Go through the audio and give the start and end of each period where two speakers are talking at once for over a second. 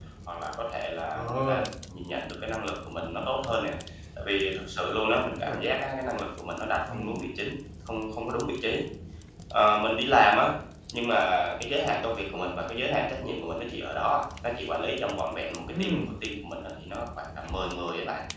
none

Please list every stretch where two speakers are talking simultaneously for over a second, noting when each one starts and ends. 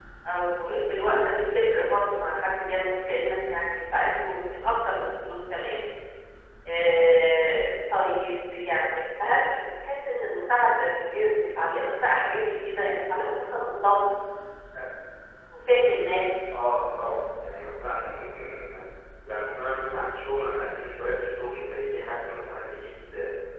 none

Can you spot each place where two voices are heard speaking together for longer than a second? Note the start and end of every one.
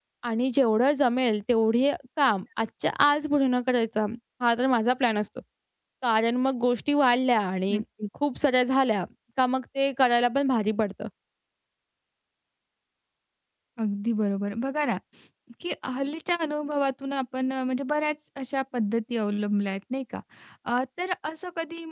none

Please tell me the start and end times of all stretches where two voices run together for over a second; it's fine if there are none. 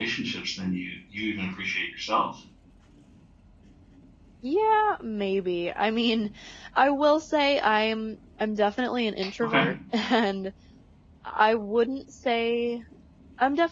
none

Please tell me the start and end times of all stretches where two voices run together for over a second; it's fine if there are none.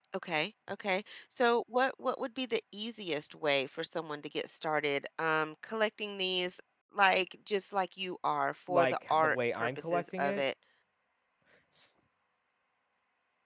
8.7-10.4

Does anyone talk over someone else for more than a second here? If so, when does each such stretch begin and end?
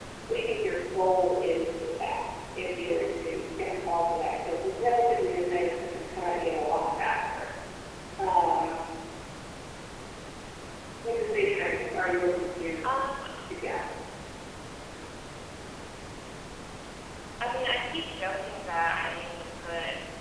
none

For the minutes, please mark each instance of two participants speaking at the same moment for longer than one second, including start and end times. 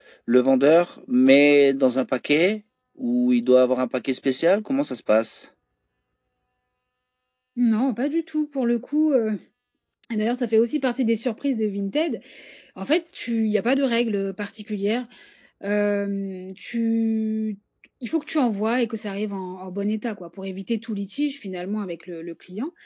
none

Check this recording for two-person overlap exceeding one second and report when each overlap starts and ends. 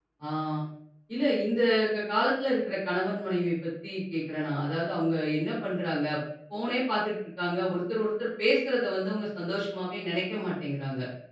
none

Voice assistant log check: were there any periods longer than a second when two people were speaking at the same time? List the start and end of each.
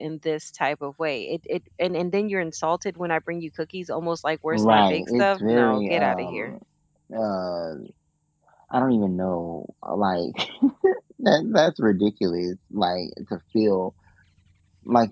4.5-6.5

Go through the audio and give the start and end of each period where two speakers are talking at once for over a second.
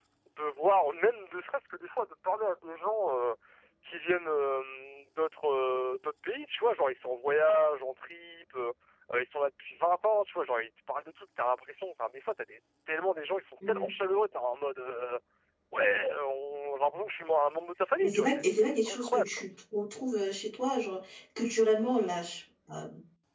18.0-19.2

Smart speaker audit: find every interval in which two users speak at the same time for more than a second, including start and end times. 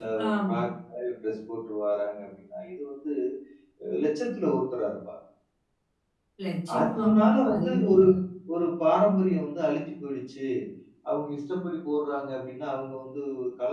6.8-8.0

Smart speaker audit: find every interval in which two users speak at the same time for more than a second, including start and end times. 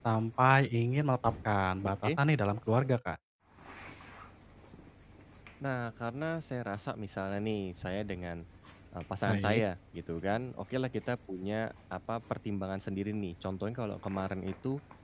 none

